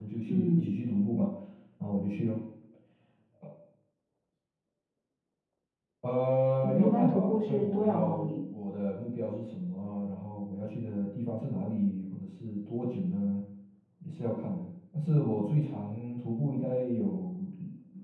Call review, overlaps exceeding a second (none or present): present